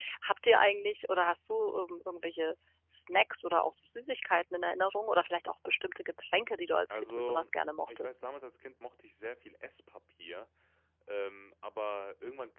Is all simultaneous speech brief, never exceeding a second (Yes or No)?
Yes